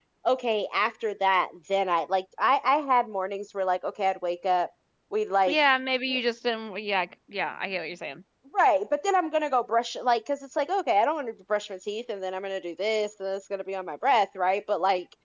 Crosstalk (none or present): none